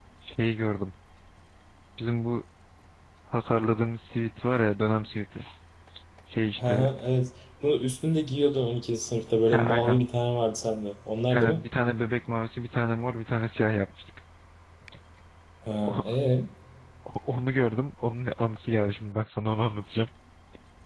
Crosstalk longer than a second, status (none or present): none